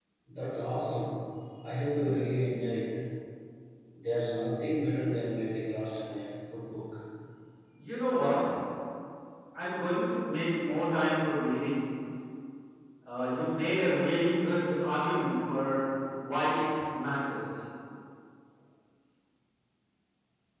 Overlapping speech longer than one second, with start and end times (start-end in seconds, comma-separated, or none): none